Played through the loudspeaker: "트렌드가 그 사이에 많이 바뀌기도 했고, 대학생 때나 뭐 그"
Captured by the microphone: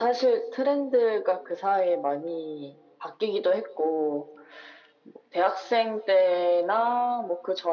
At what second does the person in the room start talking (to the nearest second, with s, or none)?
none